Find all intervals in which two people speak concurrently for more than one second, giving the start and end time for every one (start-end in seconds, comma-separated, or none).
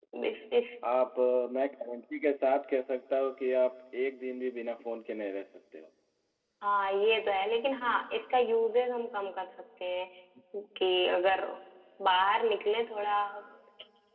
none